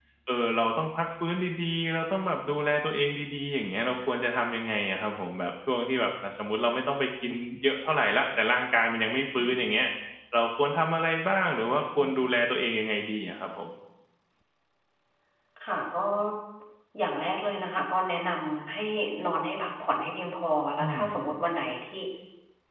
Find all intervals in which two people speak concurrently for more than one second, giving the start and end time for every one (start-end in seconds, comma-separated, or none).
none